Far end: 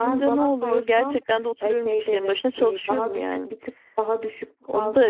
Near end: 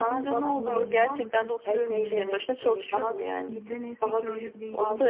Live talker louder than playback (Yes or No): No